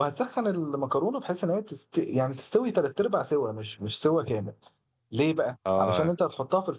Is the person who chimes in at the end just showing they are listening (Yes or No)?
Yes